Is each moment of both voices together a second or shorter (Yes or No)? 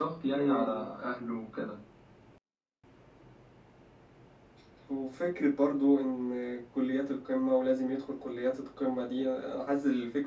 Yes